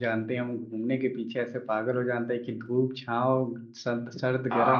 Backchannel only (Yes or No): No